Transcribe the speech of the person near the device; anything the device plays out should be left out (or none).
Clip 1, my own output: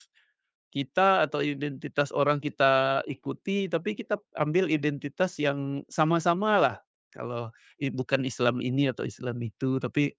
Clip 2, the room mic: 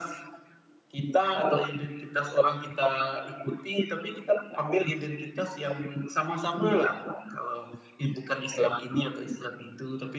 none